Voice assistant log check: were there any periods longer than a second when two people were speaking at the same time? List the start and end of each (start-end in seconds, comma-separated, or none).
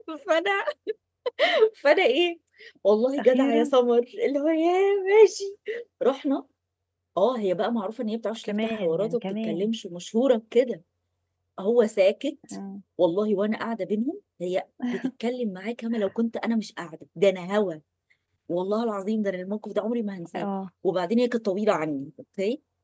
8.4-9.7